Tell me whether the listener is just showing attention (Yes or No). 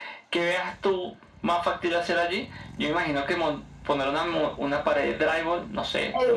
No